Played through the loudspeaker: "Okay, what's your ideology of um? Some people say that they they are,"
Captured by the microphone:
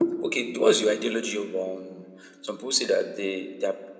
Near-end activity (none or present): none